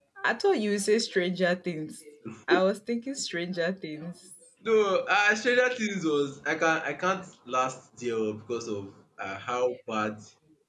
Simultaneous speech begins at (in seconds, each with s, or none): none